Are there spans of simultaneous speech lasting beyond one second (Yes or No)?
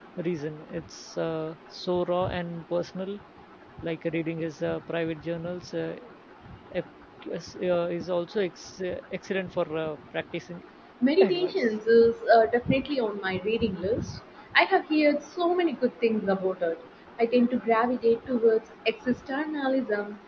No